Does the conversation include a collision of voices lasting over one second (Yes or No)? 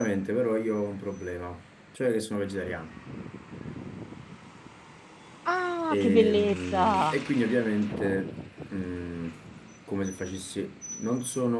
Yes